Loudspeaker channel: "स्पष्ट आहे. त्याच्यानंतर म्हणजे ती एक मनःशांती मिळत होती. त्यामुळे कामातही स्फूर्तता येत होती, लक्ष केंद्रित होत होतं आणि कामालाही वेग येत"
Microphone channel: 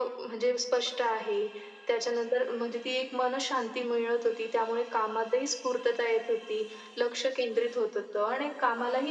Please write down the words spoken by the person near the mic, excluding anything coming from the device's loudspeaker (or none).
none